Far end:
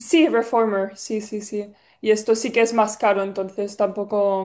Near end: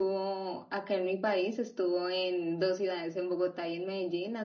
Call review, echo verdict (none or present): none